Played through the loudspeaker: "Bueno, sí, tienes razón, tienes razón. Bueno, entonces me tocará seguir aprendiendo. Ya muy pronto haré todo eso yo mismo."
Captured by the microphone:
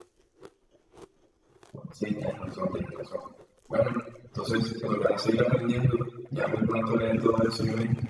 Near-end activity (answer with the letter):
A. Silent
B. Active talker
A